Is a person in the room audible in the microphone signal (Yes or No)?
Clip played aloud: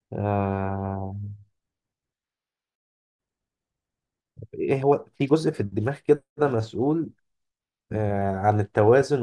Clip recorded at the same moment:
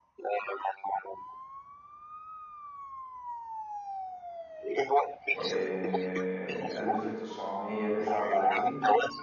Yes